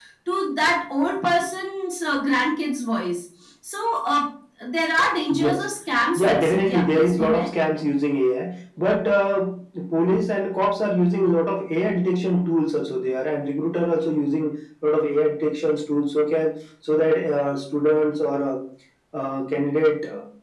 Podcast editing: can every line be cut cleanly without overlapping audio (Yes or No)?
No